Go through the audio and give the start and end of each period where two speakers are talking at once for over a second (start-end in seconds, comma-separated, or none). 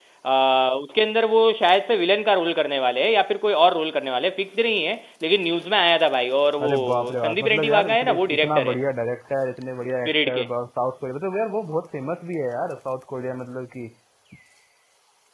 6.6-8.8